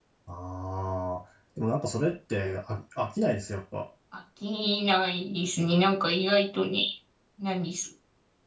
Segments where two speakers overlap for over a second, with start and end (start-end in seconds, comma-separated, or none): none